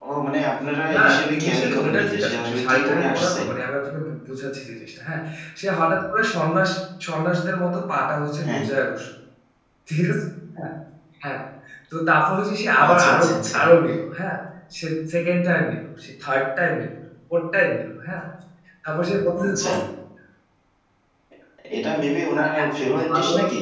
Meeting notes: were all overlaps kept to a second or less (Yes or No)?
No